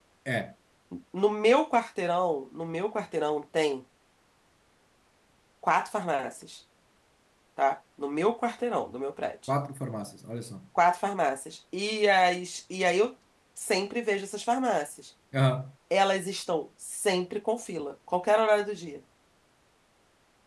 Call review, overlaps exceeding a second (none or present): none